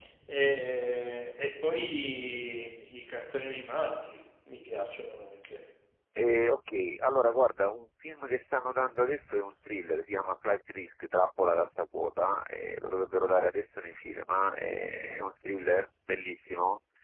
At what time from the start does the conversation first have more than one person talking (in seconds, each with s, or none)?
none